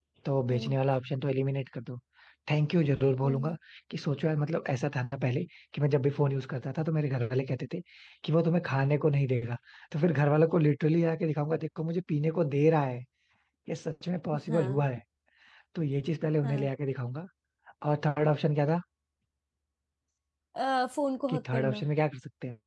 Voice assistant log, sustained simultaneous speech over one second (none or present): none